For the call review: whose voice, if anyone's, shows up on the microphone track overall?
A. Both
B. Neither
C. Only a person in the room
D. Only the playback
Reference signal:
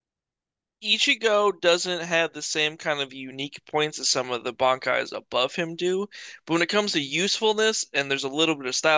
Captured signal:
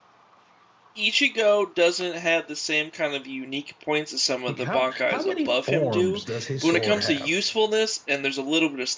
A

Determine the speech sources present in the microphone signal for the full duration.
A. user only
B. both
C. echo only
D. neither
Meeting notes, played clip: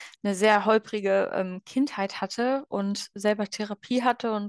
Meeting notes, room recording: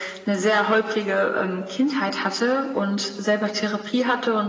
C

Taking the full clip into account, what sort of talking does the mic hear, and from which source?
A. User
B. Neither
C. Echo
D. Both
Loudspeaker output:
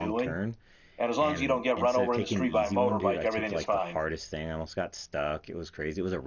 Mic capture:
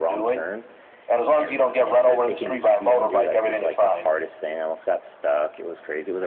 C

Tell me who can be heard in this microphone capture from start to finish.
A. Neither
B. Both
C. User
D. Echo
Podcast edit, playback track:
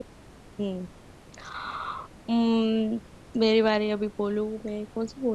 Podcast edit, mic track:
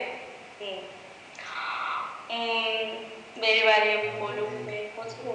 B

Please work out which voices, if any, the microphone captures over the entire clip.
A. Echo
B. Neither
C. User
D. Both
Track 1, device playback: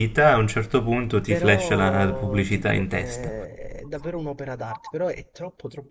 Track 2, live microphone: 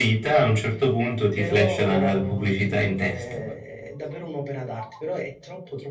A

